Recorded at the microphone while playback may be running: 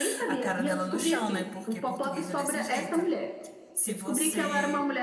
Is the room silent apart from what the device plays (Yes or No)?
No